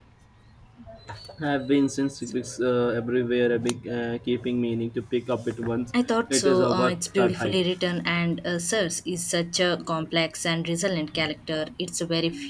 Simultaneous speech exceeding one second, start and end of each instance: 6.3-7.6

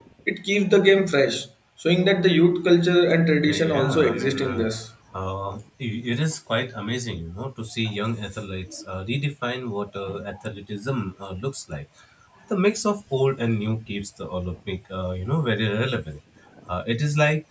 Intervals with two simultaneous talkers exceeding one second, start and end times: 3.5-4.7

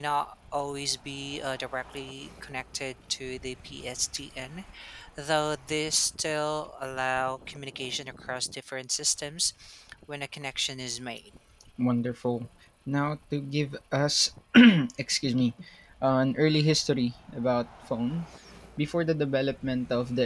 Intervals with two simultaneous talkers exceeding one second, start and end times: none

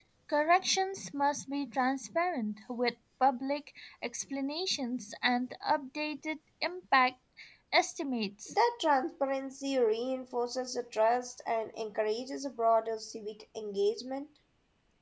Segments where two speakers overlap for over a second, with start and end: none

